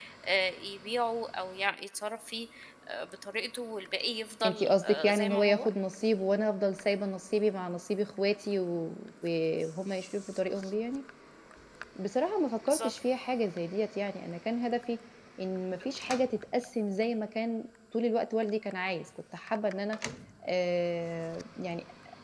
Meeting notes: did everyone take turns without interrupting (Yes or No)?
No